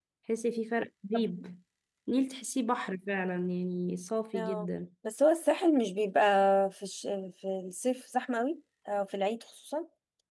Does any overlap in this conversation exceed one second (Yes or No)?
No